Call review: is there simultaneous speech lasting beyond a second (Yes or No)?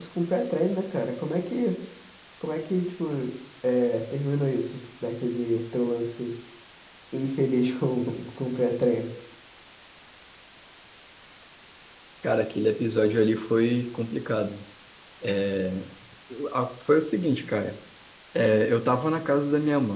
No